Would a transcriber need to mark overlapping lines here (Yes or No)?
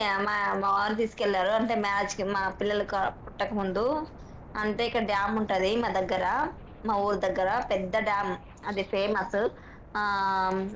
No